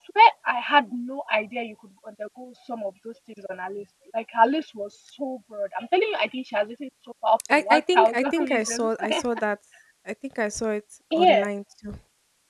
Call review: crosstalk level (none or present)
present